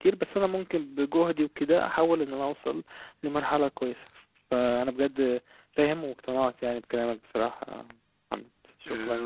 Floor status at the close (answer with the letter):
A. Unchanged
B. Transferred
B